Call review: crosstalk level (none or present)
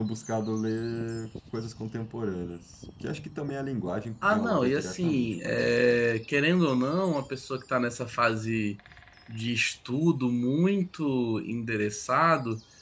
present